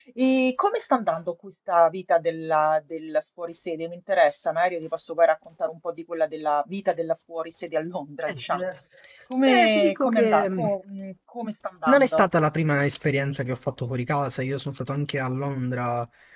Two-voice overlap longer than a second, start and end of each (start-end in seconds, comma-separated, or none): 9.4-10.7